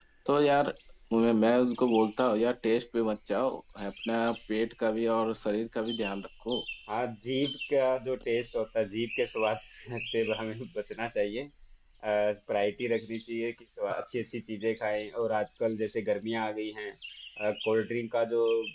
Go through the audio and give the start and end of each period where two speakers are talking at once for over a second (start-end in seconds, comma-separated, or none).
none